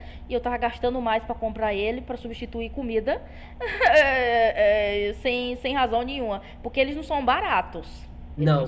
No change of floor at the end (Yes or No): No